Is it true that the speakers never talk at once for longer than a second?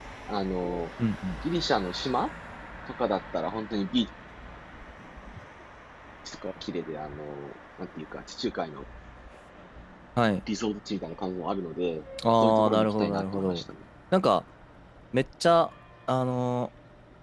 No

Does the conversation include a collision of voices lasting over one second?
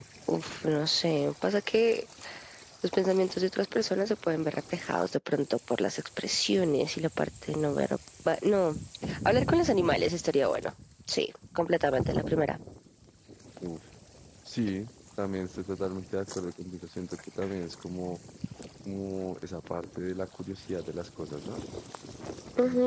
No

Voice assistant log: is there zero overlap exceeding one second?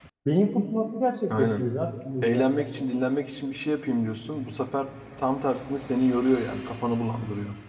Yes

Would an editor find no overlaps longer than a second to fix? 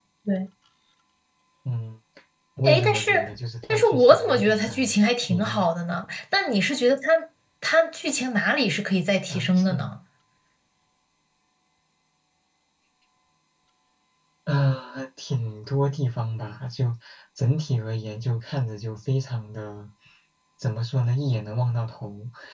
No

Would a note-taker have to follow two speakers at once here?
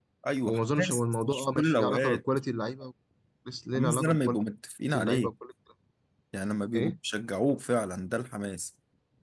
Yes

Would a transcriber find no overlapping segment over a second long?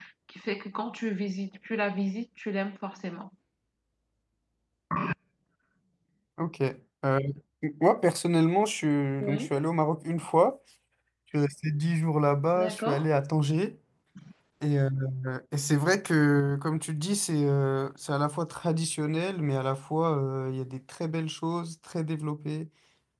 Yes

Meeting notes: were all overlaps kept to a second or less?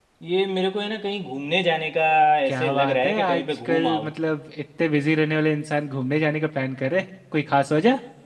No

